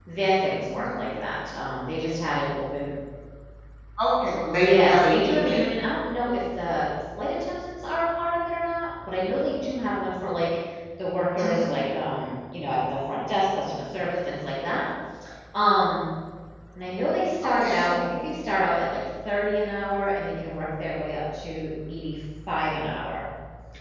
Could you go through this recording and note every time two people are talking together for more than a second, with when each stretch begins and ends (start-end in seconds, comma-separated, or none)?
4.5-5.7